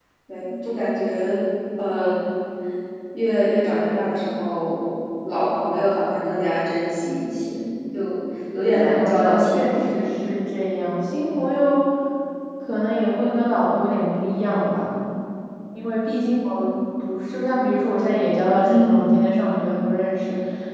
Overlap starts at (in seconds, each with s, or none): 8.7 s